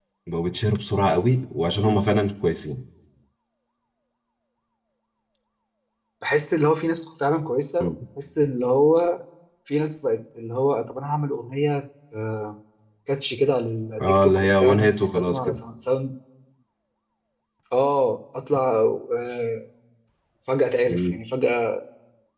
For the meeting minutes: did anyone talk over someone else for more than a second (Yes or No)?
Yes